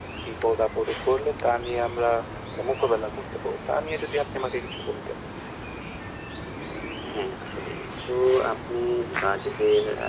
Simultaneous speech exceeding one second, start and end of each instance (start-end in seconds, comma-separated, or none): none